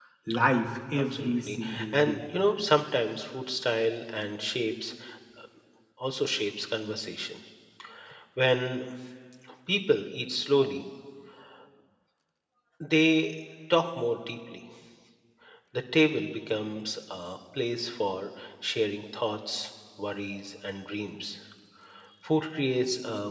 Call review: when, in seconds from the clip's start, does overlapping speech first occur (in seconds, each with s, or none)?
0.9 s